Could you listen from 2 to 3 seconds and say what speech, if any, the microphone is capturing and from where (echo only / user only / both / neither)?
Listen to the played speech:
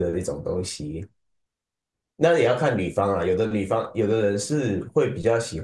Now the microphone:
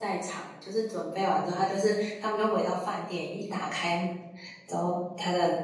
user only